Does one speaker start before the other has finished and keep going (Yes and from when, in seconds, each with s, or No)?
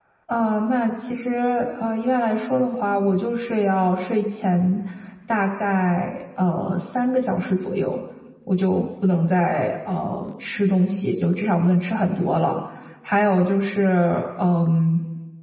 No